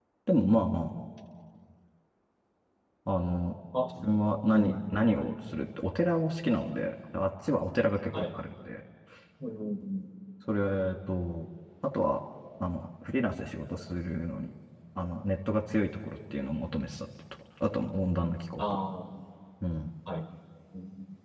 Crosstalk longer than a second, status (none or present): none